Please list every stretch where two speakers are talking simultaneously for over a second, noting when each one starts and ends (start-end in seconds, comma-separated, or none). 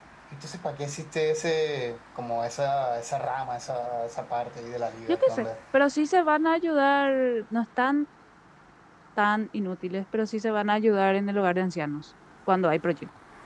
none